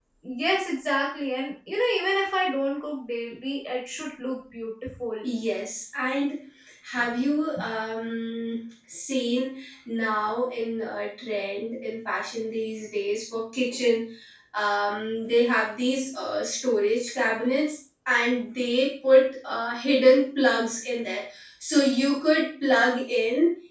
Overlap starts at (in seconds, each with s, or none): none